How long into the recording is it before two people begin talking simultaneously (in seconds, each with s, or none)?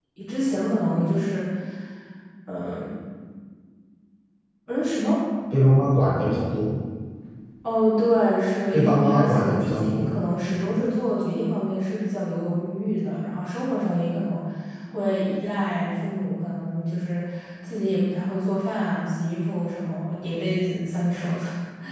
8.7 s